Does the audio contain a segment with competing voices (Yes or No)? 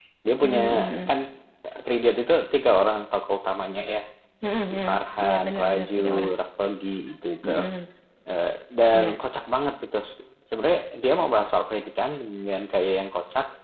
Yes